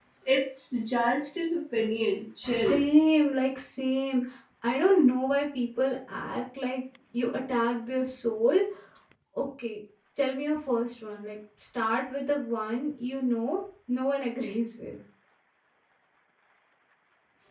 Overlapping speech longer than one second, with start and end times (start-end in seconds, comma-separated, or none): none